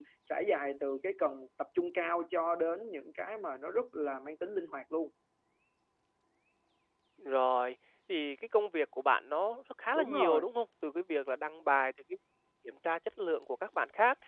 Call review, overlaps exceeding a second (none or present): none